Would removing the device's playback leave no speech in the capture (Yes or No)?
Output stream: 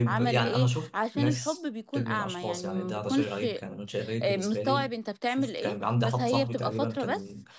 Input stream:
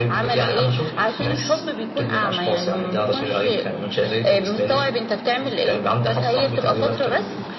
Yes